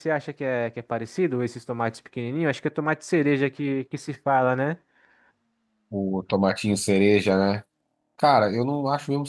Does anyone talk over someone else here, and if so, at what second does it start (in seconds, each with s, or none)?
none